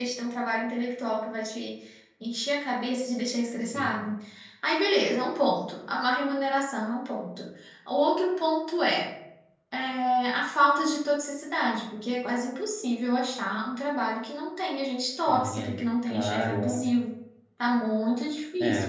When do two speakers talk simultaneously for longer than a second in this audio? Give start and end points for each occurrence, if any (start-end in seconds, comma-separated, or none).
15.3-16.9